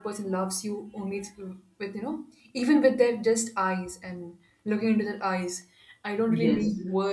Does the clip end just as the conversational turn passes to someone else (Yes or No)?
No